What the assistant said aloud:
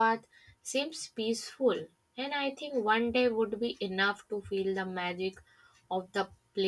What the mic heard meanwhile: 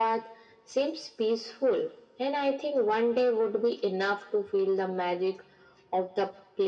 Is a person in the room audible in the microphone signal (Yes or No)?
No